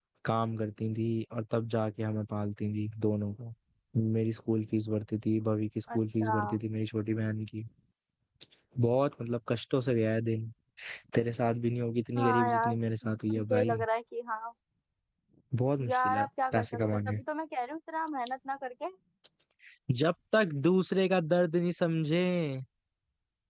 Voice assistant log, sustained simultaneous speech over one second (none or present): present